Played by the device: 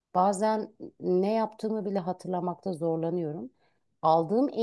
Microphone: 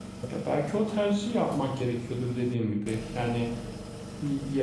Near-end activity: present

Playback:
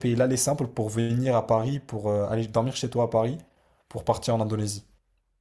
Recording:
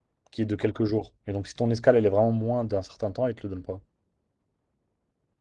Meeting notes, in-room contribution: present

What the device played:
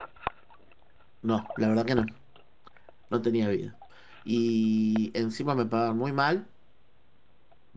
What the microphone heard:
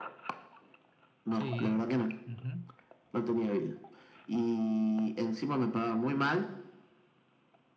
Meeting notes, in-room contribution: present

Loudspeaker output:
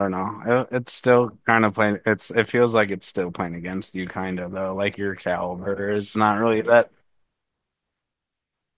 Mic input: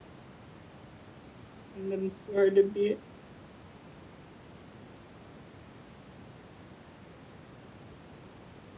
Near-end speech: present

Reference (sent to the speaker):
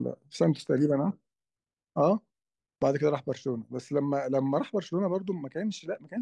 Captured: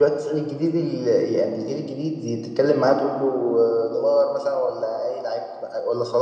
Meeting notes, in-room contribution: present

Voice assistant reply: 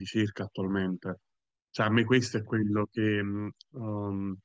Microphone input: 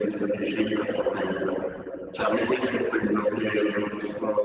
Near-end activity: none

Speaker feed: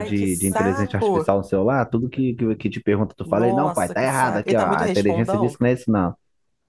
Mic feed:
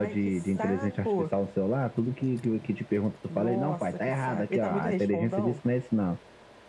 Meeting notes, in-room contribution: none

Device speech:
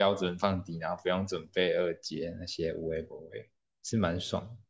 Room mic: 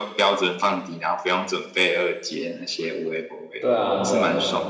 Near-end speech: present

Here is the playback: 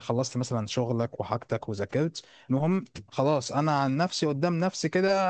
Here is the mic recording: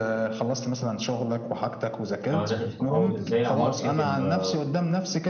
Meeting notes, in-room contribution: present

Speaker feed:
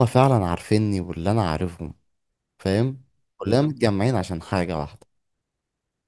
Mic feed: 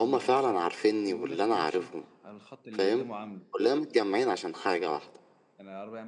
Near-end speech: present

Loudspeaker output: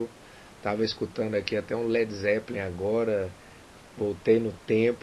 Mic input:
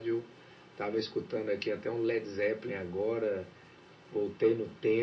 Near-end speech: none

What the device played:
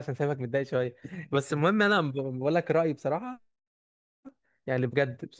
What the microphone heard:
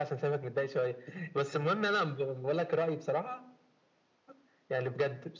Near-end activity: none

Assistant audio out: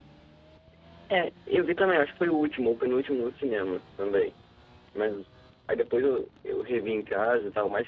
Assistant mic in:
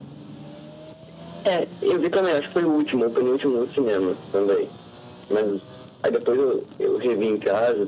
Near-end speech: none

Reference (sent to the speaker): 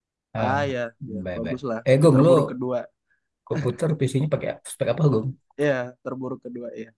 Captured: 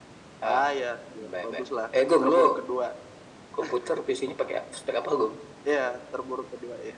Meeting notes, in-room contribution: none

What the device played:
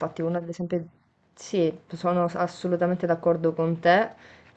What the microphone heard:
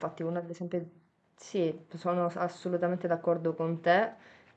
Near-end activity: none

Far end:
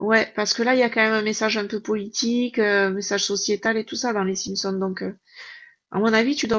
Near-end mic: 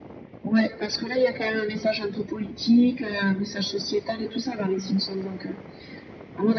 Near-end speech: none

